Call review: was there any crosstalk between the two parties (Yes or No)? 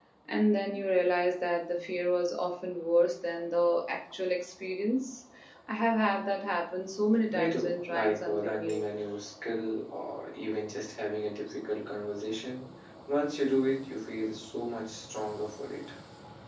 Yes